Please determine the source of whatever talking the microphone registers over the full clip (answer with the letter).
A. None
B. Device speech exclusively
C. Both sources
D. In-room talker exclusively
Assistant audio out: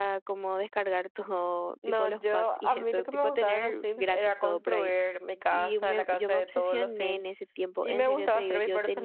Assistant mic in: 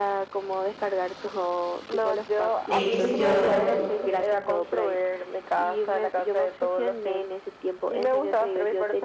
C